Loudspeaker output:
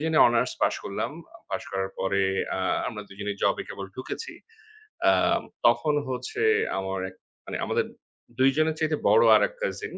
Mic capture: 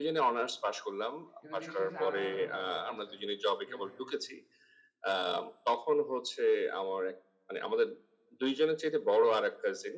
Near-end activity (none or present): present